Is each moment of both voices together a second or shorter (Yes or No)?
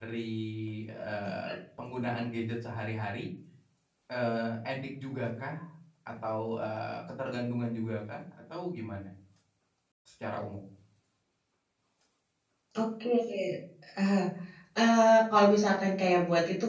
Yes